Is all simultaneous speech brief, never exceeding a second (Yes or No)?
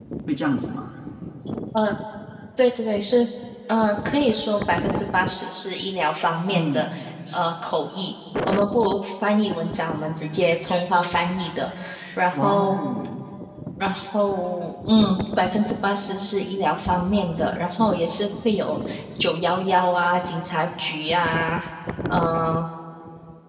Yes